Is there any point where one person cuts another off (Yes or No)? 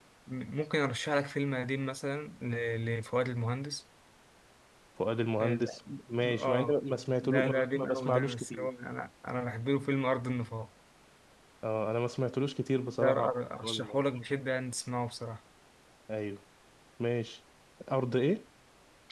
Yes